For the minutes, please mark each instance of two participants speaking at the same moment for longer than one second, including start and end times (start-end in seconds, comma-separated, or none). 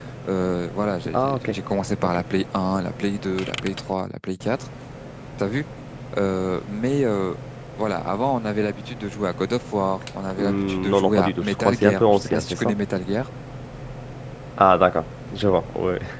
10.4-12.7